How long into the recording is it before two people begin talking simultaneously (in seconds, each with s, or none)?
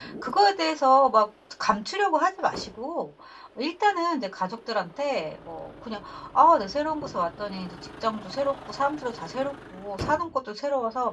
none